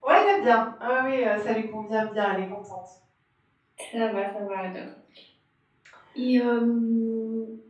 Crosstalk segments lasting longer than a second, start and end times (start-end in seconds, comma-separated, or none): none